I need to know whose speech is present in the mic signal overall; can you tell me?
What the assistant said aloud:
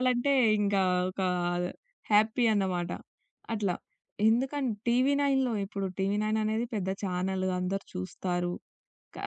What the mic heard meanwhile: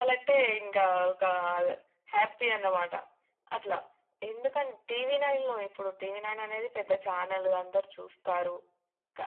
echo only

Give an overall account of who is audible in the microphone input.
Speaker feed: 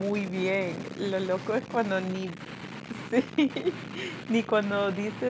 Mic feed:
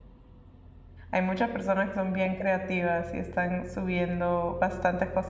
user only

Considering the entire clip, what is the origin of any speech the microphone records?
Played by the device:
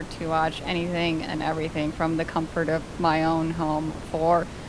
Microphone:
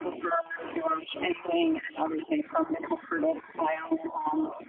echo only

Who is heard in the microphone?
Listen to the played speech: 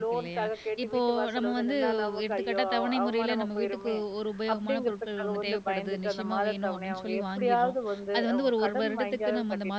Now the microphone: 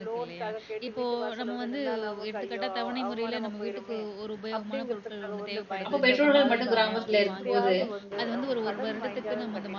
both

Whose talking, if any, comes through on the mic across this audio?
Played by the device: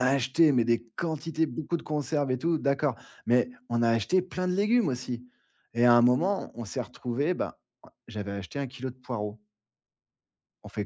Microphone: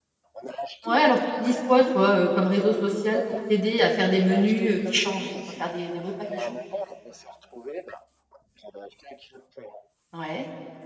both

